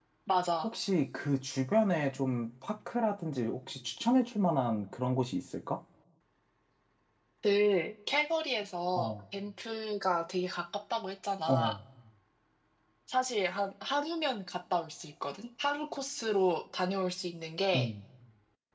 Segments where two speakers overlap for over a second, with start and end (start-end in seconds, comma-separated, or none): none